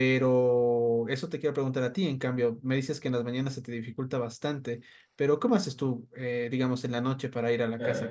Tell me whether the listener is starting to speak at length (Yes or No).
No